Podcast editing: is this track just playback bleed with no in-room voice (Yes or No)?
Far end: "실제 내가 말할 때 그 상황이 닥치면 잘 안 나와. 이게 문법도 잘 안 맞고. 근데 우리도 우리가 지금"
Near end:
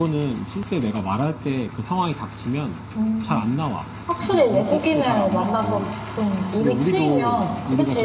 No